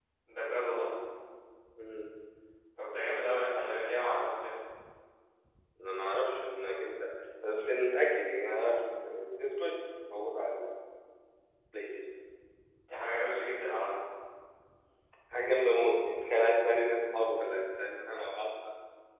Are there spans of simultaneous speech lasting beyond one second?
No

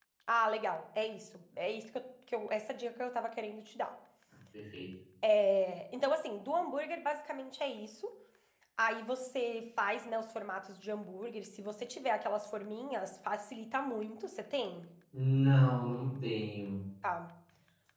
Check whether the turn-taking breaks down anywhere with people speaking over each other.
No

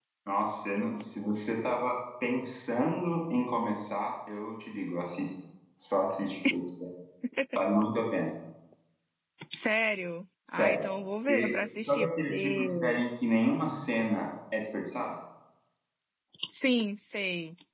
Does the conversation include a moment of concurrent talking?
Yes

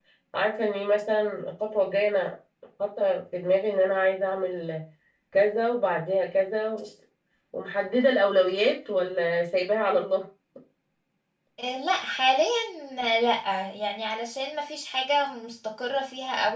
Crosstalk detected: No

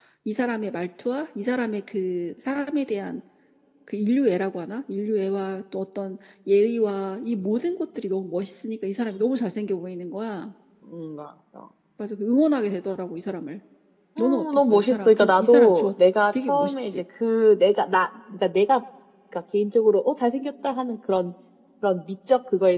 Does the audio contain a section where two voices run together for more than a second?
Yes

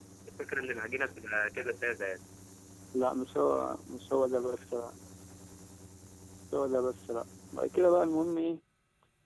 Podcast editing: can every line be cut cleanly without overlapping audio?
Yes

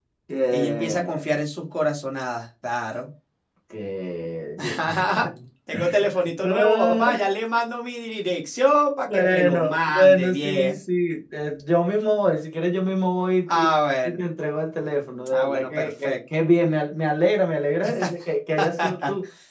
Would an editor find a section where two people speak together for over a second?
Yes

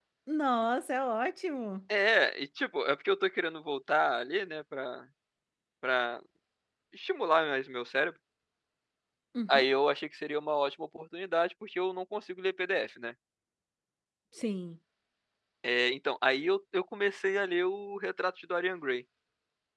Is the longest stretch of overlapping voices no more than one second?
Yes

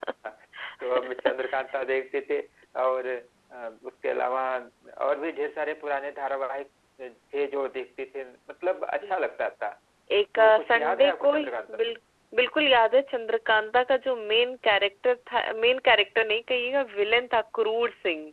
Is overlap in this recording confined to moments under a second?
No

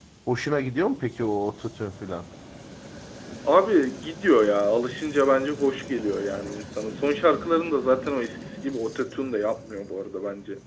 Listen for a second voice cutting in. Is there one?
No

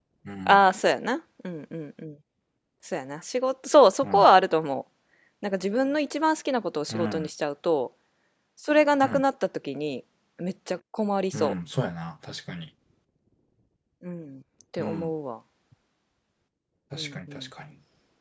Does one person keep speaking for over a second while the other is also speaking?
No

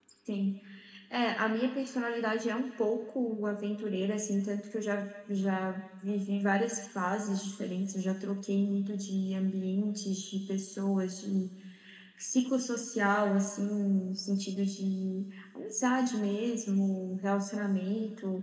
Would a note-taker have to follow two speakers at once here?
No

